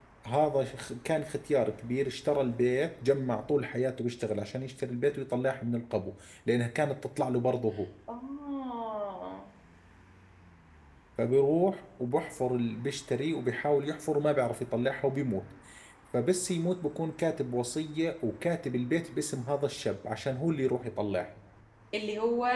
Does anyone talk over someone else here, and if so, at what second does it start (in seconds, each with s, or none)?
none